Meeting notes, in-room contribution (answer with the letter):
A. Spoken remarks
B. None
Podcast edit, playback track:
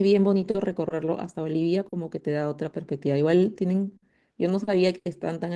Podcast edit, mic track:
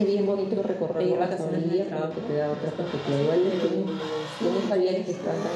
A